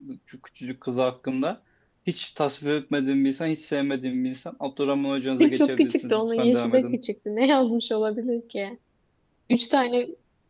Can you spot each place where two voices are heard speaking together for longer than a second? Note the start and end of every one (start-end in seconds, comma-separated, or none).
5.5-7.0